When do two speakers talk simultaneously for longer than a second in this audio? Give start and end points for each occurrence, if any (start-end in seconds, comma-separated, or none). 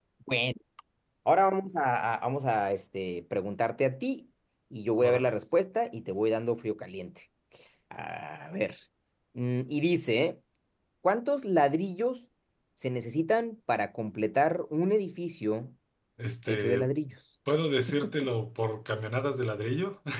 none